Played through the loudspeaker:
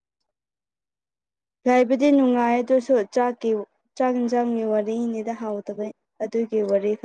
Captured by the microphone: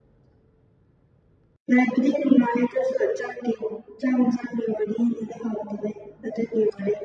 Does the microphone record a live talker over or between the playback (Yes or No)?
No